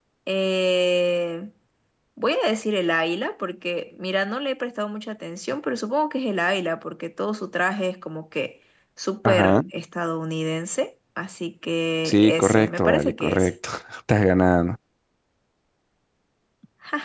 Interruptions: present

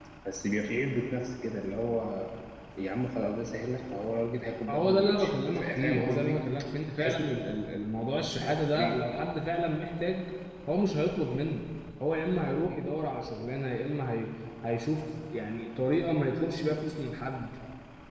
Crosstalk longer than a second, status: present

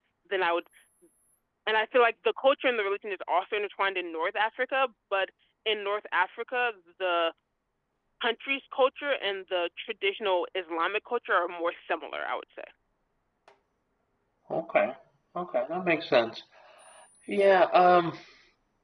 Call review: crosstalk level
none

